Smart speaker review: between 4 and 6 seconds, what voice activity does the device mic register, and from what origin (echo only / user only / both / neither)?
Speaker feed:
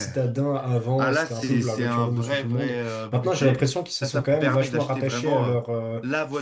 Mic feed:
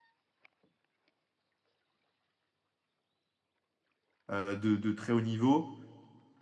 user only